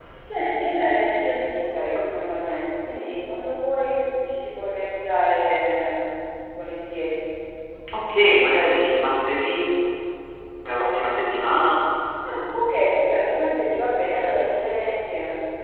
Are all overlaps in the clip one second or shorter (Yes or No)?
Yes